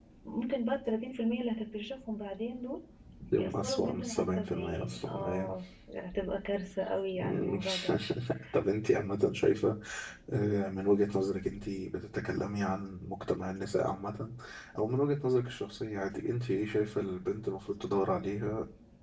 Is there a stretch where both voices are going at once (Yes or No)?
Yes